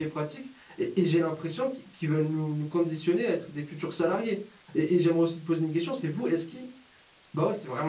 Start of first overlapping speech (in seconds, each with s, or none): none